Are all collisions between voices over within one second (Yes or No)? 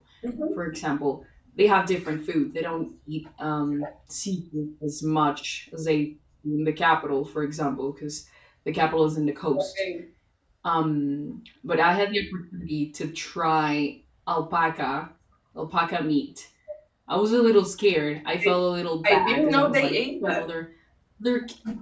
No